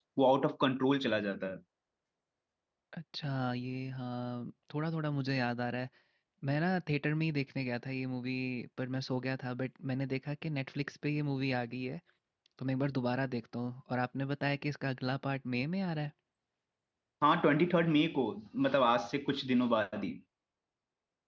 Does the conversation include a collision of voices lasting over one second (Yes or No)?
No